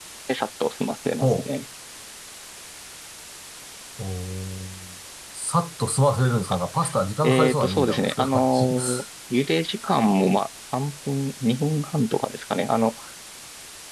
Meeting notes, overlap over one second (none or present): present